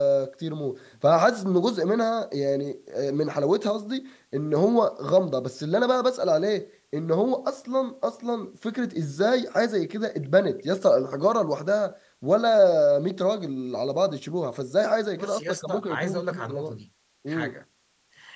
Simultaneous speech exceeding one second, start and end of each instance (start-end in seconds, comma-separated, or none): 15.2-16.8